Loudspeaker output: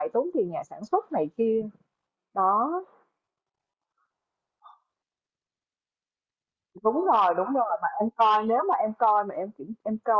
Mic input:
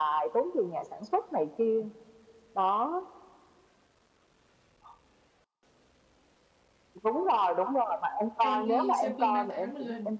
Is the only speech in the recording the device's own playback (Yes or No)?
No